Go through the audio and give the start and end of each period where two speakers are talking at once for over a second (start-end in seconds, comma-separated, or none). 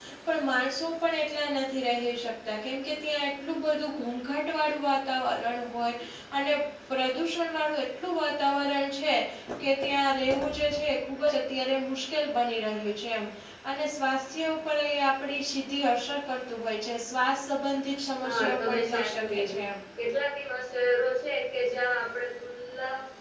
18.2-19.6